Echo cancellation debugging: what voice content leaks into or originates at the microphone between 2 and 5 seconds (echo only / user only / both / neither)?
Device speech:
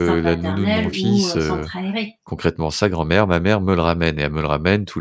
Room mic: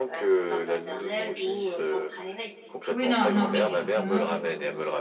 both